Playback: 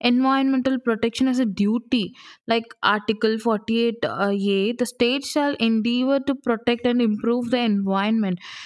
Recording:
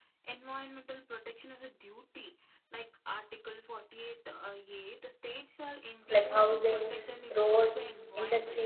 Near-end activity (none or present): present